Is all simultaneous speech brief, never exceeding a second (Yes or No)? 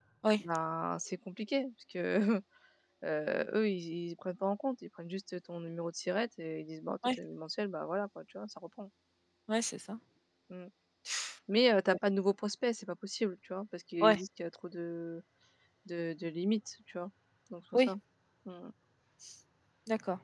Yes